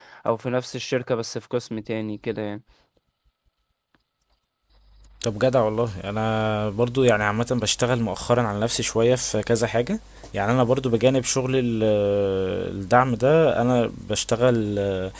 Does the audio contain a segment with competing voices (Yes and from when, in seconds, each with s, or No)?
No